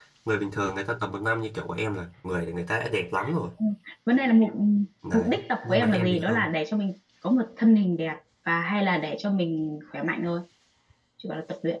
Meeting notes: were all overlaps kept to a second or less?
No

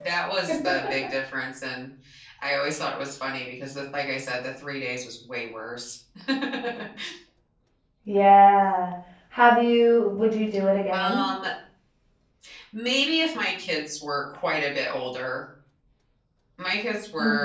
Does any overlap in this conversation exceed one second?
No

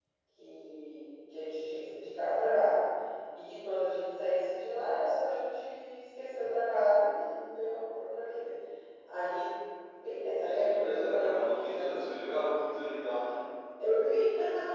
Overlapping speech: Yes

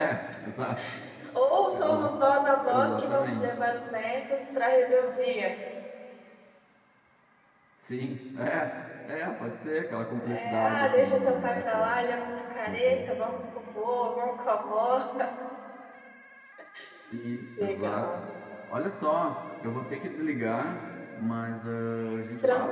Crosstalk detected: Yes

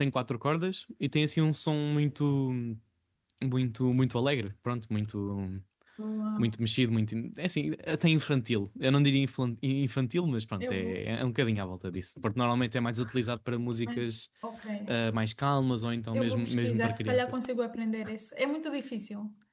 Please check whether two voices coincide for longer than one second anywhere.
Yes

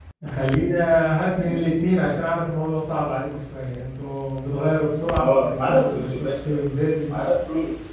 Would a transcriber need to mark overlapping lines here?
Yes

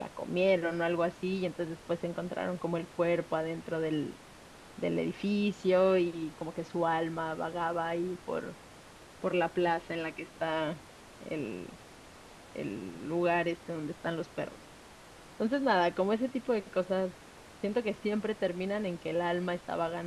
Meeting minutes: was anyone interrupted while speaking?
No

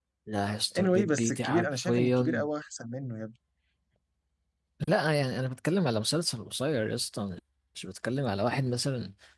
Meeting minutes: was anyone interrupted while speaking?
Yes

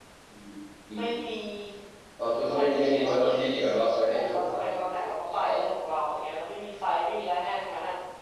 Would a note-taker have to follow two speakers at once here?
Yes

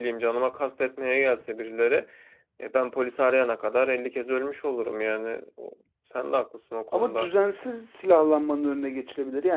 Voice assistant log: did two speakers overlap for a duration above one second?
No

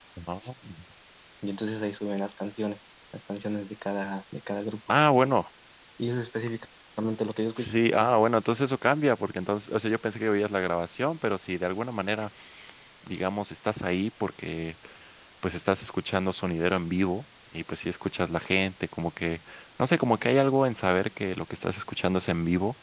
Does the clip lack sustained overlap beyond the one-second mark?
Yes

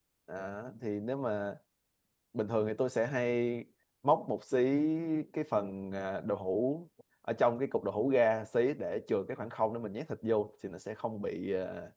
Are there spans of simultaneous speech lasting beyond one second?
No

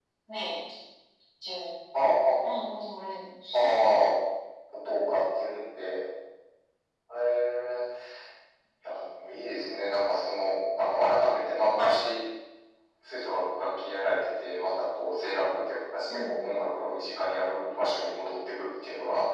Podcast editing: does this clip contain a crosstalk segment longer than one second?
No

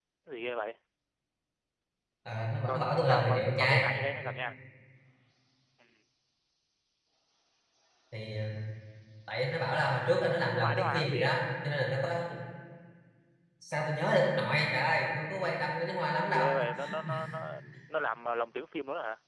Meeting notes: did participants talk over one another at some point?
Yes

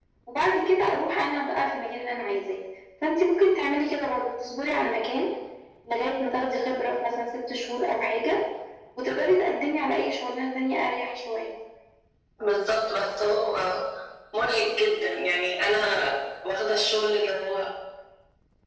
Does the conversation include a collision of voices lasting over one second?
No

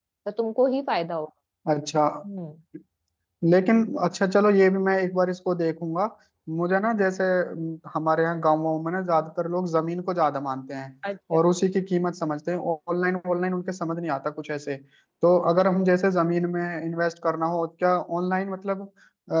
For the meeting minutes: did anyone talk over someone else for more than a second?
No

